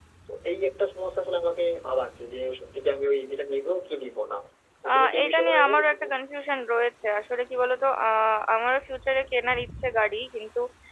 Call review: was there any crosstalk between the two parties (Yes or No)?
Yes